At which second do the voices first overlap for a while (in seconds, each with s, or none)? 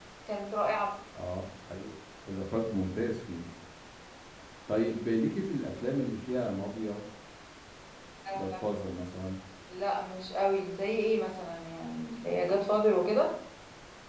none